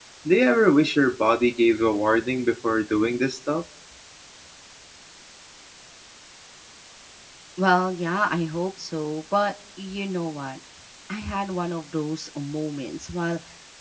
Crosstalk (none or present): none